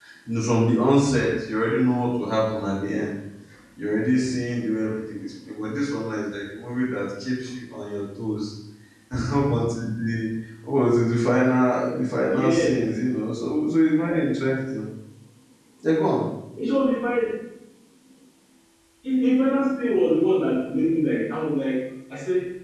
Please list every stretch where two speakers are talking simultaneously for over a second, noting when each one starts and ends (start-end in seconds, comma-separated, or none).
none